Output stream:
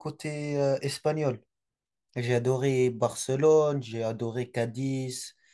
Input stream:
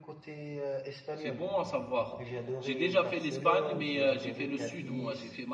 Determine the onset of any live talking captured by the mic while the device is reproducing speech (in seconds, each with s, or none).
1.1 s